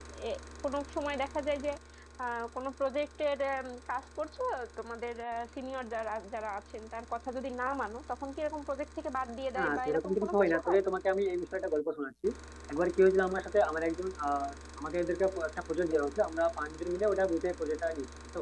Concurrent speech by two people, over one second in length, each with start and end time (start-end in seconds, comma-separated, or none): 9.6-10.8